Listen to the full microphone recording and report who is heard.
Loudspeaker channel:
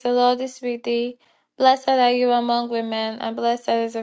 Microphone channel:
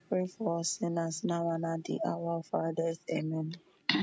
user only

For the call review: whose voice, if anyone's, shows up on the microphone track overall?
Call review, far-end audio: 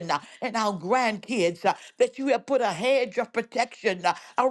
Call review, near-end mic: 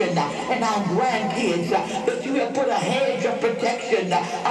echo only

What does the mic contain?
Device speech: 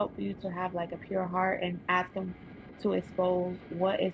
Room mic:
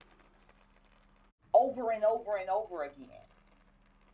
user only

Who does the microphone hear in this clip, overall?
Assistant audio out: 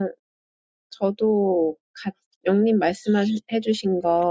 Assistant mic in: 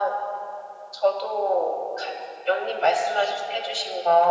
echo only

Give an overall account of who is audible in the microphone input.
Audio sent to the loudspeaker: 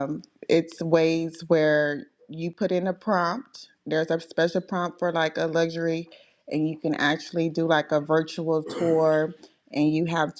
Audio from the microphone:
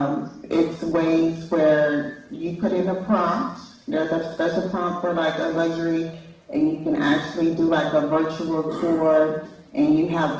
echo only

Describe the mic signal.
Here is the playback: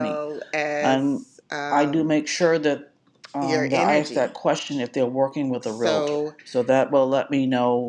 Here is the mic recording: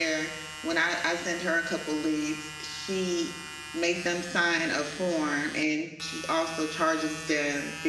user only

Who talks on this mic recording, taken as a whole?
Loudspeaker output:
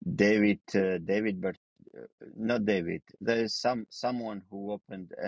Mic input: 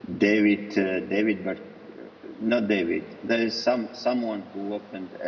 echo only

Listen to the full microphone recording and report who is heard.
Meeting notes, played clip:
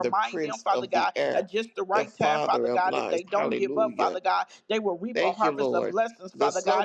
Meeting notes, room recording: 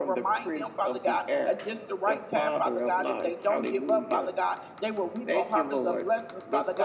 echo only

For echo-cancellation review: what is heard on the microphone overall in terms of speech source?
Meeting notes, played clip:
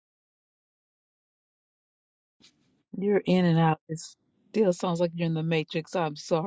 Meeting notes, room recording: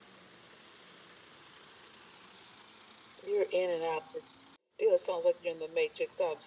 echo only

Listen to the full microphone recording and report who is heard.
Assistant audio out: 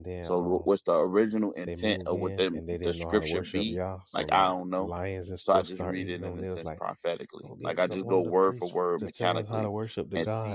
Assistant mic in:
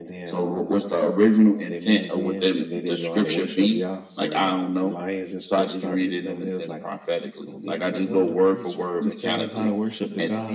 echo only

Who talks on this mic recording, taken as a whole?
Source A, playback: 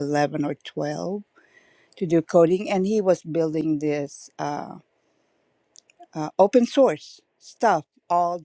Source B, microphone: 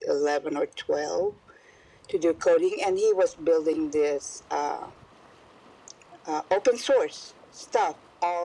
echo only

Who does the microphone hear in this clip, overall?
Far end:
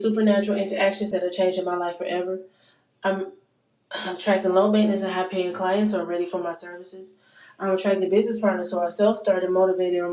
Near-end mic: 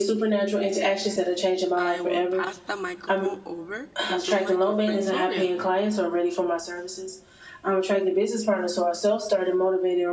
both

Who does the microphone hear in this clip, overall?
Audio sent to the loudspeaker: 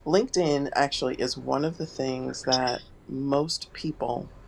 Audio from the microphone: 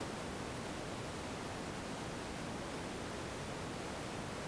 neither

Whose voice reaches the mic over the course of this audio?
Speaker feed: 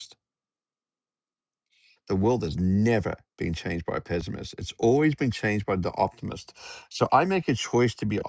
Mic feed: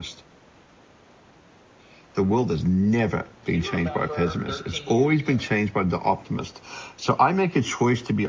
both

